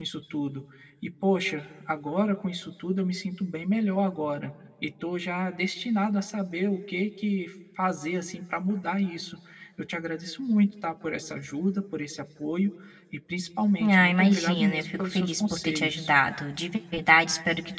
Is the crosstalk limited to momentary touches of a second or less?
No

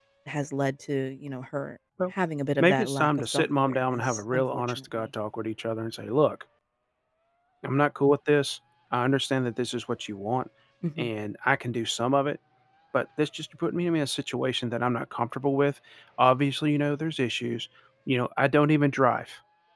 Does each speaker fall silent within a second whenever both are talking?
No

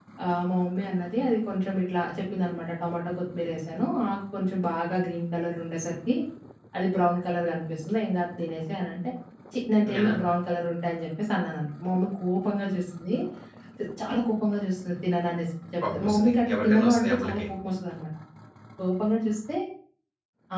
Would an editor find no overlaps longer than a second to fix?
No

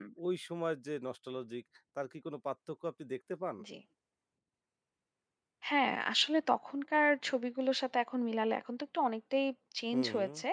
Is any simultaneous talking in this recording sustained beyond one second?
No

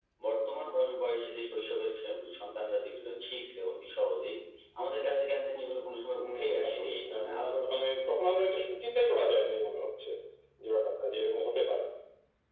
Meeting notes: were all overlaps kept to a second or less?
No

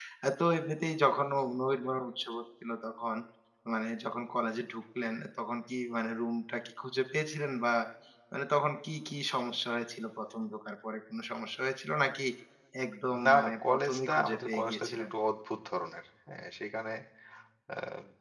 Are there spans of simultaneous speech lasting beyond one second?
Yes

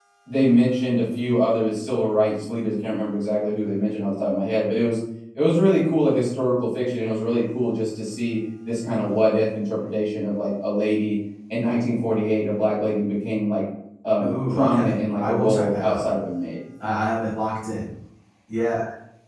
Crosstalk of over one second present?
Yes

